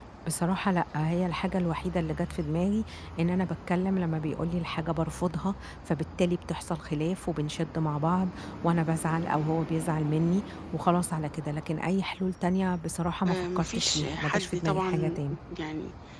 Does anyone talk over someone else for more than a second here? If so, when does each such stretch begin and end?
13.3-15.2

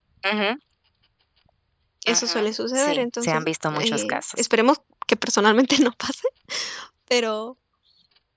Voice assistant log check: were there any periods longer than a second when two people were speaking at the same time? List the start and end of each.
2.1-4.5

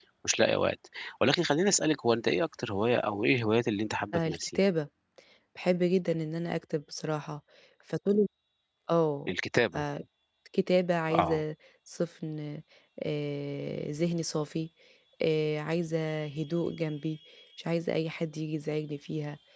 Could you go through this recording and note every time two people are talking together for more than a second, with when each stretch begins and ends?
none

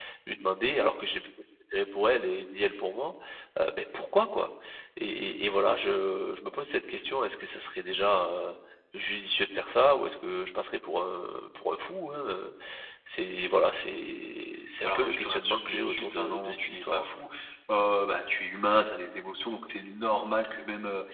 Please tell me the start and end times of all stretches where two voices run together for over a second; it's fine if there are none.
14.8-17.2

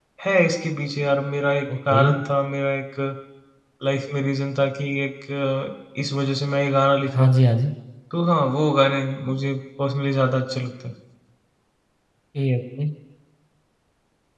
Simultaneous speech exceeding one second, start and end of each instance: none

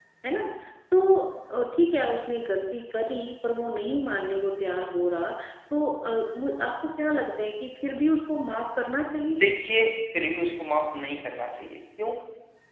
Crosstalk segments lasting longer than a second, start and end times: none

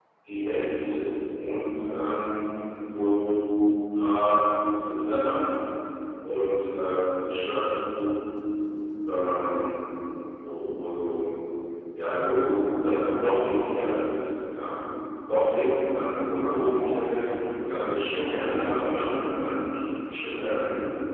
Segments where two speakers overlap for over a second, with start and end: 17.6-19.2

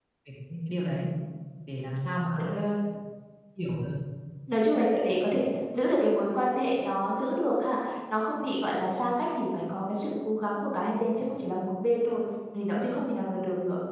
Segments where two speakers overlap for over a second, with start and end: none

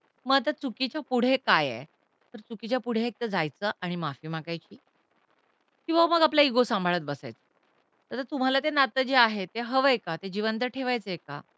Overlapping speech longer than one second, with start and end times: none

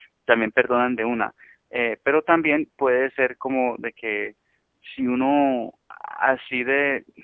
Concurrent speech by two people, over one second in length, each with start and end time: none

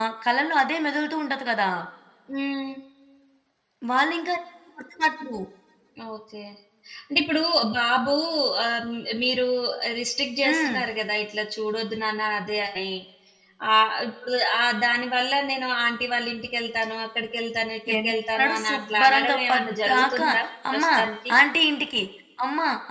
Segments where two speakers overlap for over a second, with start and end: 18.0-20.3

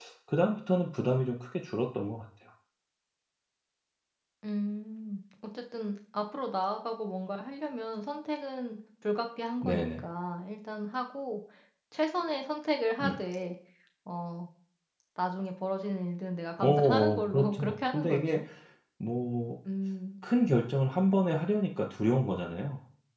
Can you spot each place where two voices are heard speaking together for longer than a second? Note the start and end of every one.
16.6-18.4

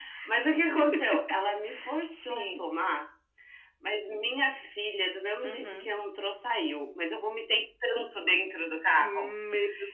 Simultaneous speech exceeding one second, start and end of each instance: none

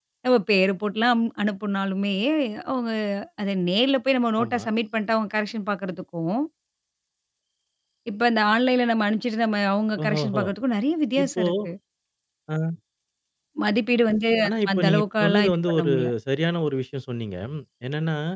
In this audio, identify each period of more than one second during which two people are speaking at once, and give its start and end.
14.4-15.9

